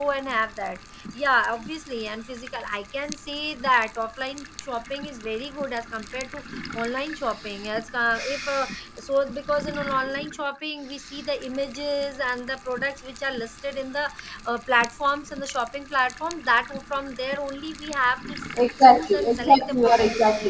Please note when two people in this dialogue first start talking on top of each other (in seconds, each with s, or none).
18.6 s